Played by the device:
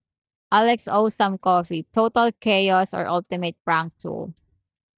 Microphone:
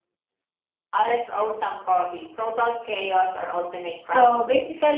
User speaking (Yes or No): Yes